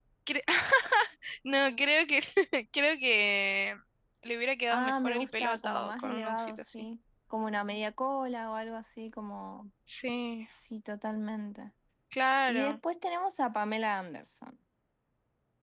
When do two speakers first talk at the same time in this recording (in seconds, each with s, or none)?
4.7 s